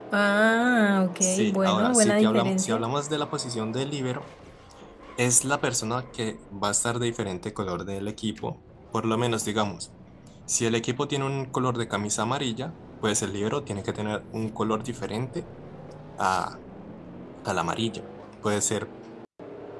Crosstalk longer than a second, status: present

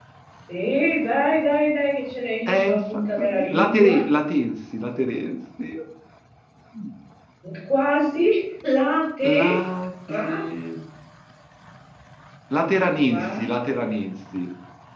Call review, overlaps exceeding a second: present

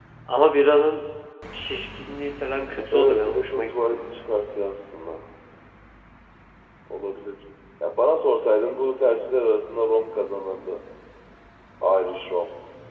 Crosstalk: present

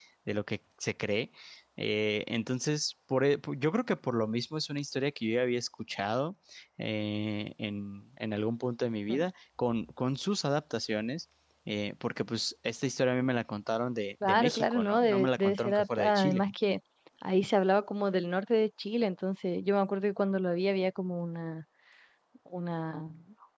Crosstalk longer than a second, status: present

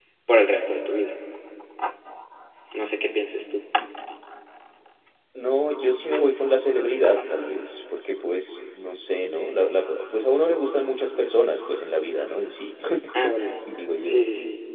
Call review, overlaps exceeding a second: none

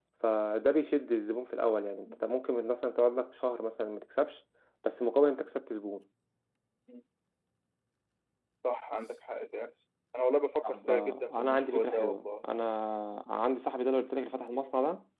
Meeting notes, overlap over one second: present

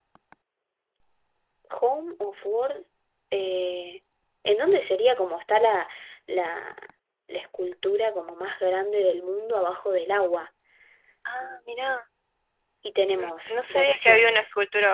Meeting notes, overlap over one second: present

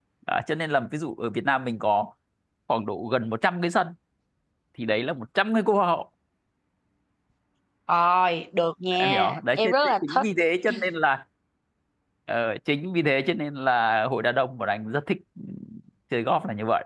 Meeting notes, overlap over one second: present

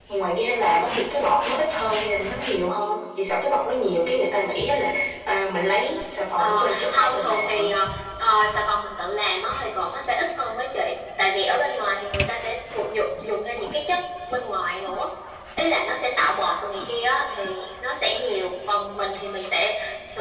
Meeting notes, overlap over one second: present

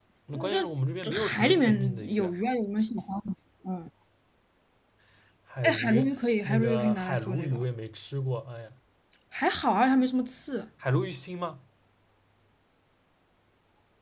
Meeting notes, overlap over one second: present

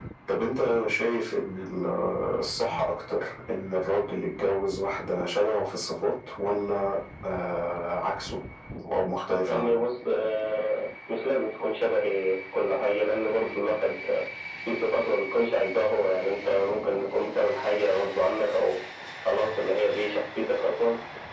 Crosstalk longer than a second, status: none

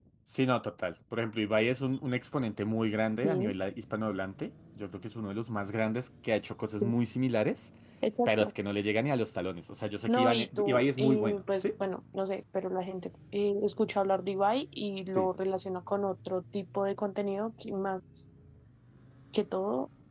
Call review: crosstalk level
present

